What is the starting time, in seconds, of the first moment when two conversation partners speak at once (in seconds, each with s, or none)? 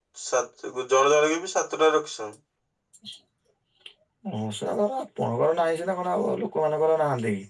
none